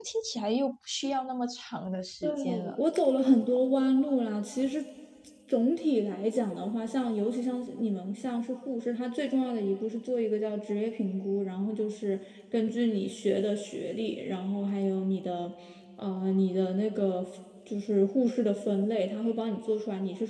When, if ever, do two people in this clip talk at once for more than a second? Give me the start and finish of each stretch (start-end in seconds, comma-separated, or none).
none